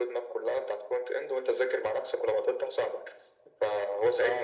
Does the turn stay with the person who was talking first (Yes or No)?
No